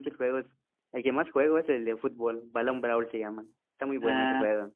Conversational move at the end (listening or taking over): taking over